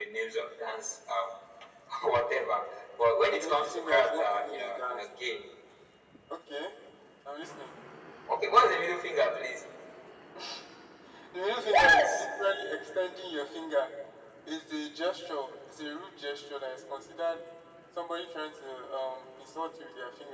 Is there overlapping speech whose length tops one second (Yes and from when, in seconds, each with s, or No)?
Yes, from 3.3 s